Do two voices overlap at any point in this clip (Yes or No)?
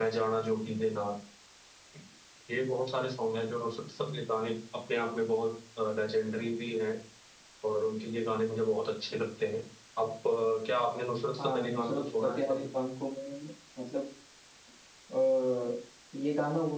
Yes